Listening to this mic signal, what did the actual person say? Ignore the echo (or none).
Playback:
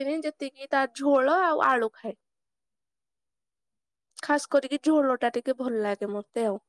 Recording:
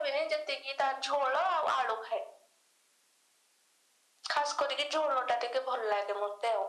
none